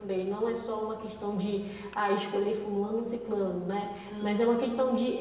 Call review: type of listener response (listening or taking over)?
listening